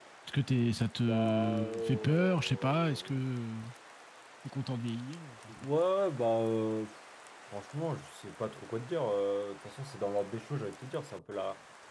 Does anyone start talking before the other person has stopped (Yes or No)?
Yes